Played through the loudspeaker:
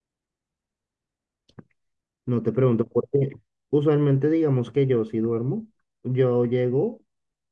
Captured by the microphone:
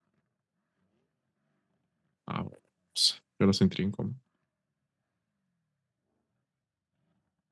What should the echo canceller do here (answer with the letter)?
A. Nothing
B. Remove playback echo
A